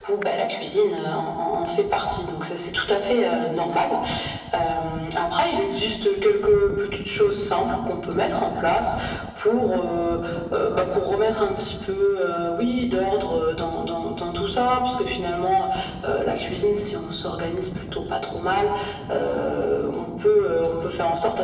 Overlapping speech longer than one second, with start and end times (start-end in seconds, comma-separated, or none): none